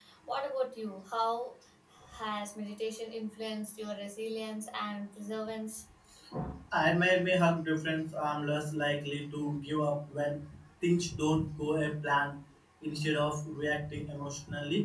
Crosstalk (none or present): none